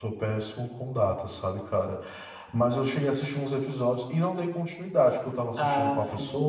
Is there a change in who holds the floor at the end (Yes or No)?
No